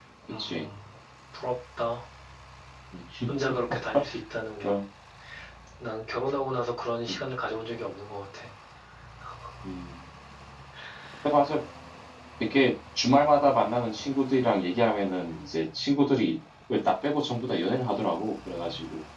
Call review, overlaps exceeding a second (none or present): none